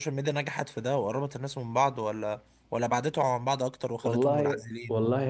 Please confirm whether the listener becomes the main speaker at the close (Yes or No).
Yes